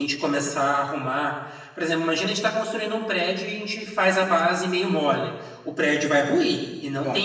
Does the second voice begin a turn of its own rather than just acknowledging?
No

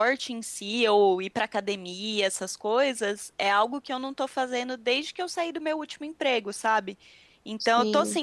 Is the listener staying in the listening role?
Yes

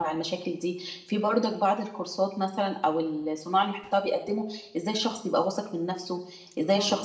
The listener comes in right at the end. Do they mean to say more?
No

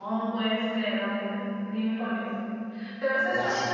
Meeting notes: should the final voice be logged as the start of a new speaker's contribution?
No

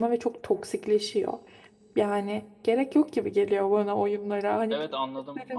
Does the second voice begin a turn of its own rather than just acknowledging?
Yes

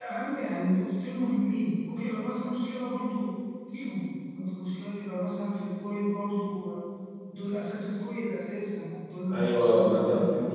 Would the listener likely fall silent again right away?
No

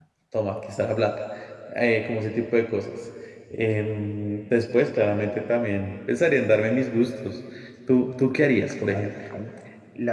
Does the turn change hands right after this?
Yes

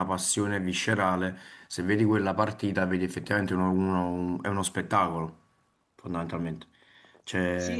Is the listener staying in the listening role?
No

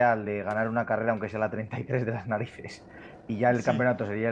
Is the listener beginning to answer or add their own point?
No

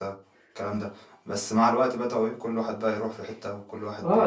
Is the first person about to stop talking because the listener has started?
Yes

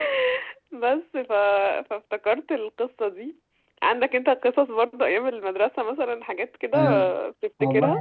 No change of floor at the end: No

